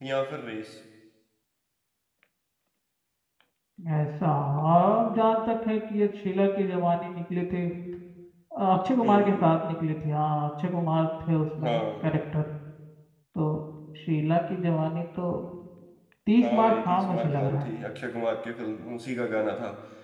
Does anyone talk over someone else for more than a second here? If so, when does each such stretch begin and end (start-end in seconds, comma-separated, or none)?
16.4-17.7